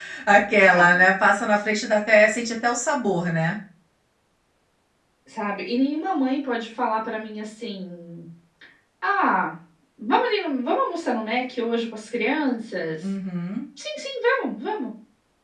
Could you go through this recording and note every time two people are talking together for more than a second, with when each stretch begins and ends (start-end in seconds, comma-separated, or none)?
none